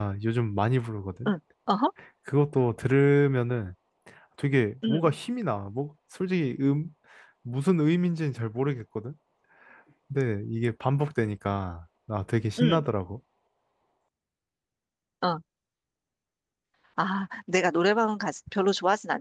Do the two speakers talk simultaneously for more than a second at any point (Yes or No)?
No